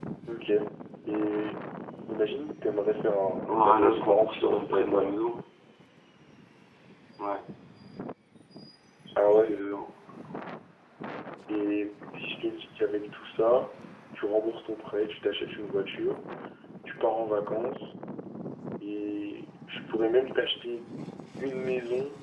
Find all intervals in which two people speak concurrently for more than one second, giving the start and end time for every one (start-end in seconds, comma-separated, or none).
3.5-5.2